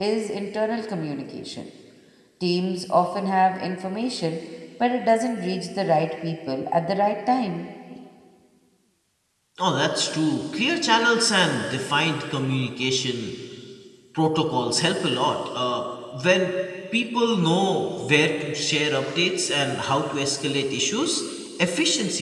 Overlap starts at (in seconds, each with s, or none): none